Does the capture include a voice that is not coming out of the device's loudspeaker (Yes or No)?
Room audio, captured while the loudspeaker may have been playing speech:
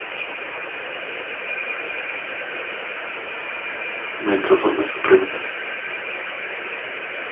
Yes